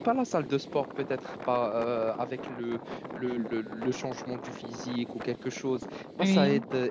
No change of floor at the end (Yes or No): Yes